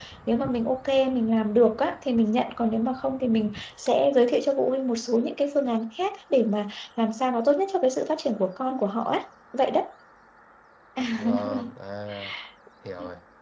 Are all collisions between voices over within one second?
Yes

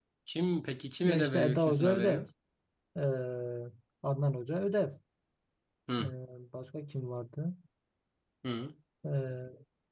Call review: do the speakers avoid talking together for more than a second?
No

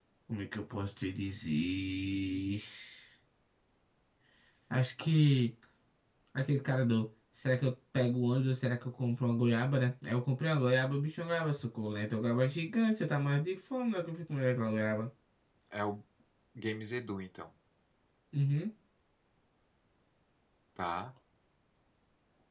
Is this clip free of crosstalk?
Yes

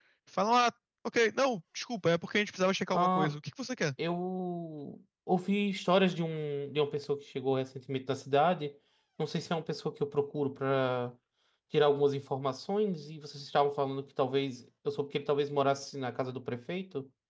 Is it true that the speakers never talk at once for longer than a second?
Yes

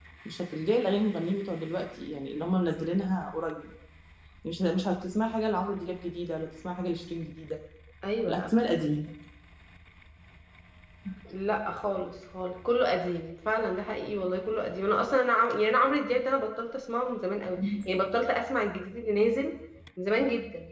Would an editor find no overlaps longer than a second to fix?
Yes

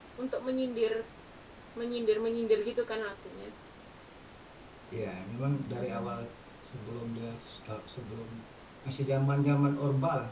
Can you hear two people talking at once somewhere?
No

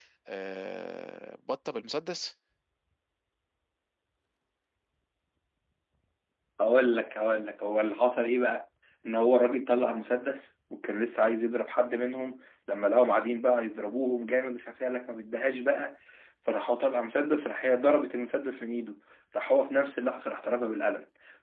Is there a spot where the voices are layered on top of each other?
No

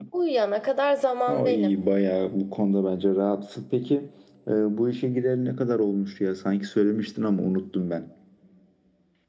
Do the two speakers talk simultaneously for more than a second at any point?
No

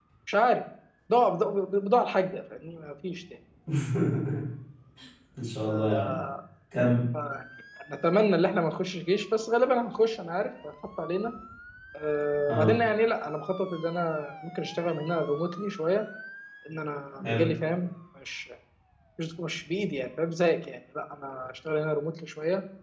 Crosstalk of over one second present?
No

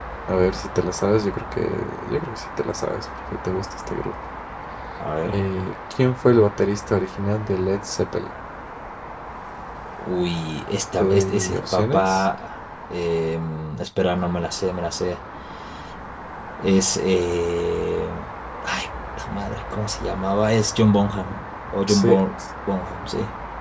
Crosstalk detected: Yes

